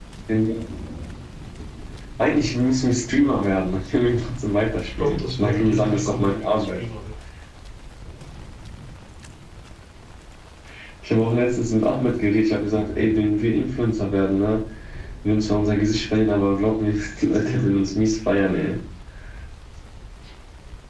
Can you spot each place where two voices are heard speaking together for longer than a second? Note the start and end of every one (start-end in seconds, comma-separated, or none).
4.8-6.8